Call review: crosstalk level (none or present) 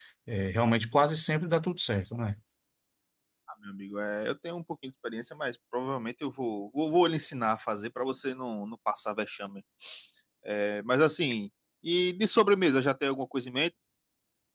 none